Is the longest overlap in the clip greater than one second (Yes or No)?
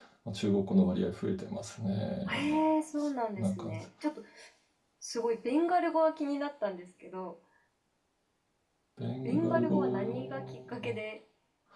Yes